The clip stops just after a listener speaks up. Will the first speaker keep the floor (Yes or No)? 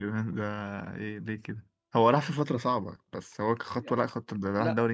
No